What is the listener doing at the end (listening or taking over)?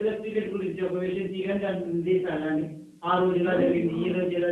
listening